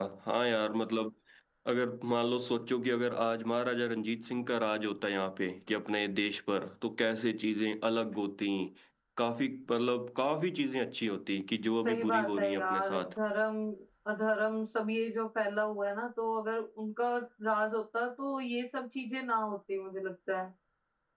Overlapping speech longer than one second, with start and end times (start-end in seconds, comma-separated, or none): 11.8-13.1